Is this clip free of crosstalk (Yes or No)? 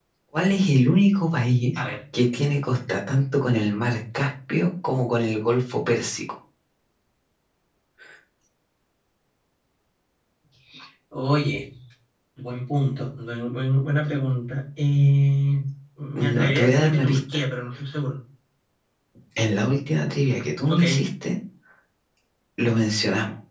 No